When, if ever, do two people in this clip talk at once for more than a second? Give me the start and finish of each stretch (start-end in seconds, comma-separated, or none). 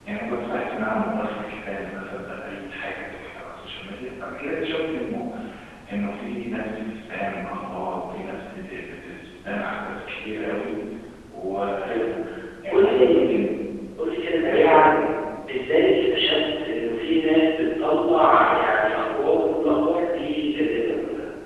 none